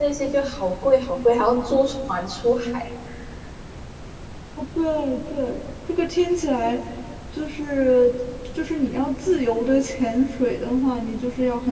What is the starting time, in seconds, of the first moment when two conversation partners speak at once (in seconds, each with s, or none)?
none